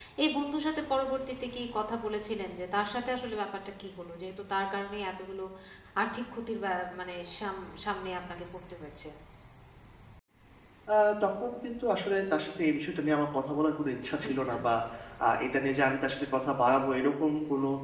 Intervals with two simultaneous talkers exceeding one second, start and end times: none

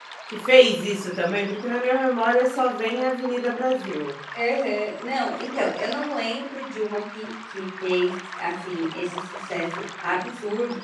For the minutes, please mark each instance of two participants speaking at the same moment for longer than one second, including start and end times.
none

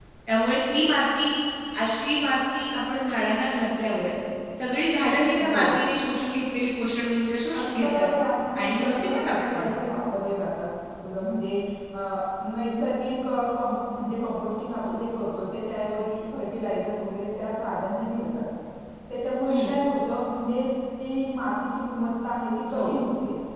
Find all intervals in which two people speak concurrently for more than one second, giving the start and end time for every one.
8.6-9.9

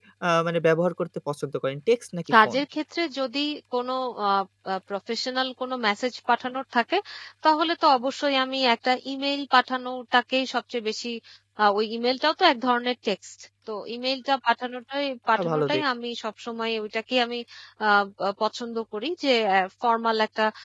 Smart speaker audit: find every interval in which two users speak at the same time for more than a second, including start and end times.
none

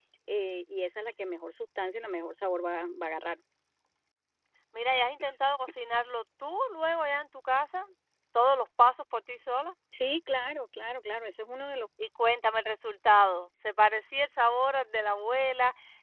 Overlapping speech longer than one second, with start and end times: none

